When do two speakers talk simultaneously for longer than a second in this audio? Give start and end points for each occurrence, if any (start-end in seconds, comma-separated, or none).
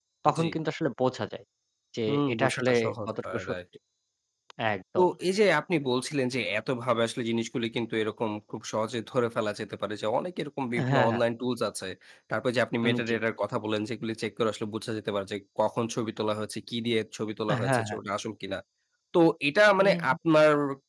2.1-3.6